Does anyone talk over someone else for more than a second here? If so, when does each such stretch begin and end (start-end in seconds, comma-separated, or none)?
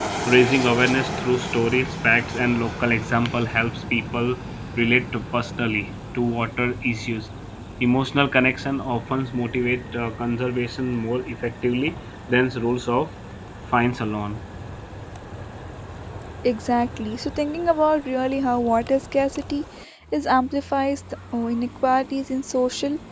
none